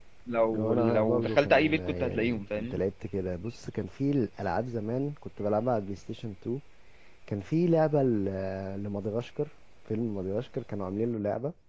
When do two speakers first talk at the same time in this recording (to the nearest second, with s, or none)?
1 s